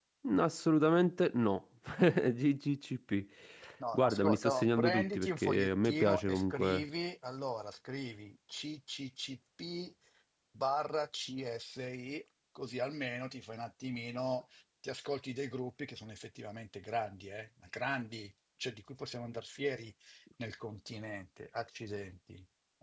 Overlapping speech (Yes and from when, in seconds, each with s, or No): Yes, from 3.9 s